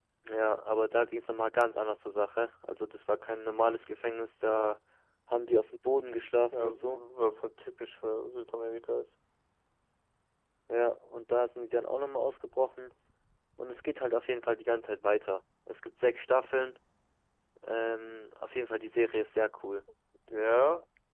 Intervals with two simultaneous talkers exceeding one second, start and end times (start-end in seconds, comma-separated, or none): none